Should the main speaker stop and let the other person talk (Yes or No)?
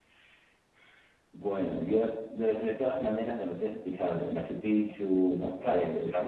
No